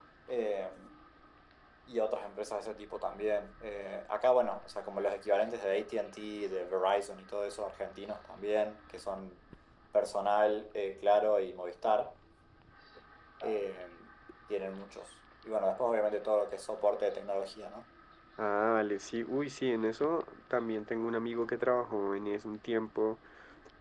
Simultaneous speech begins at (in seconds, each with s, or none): none